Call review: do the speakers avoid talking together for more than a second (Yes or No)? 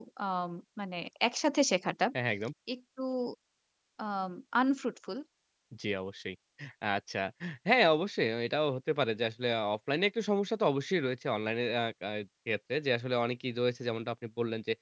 Yes